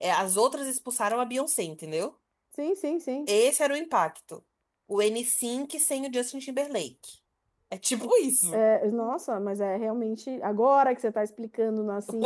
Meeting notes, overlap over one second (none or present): none